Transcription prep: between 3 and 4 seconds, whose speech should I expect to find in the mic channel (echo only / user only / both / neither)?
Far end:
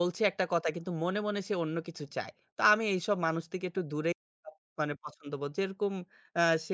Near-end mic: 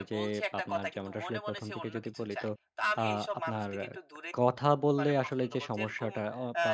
both